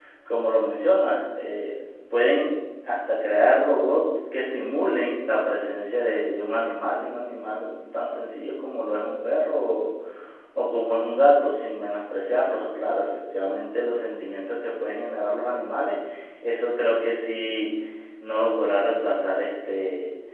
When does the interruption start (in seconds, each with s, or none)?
none